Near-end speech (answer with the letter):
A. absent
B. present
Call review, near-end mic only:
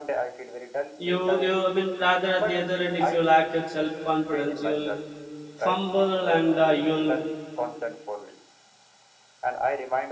B